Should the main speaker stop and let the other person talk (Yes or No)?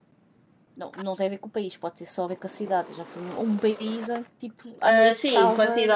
Yes